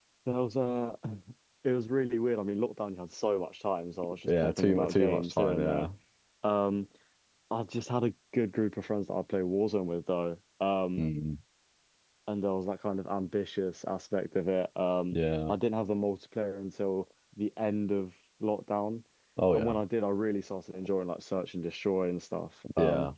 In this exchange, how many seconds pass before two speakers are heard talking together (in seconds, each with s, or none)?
4.3 s